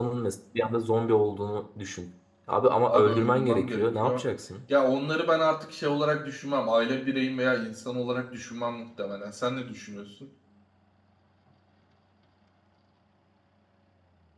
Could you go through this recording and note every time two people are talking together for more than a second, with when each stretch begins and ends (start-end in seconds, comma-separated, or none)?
2.9-4.3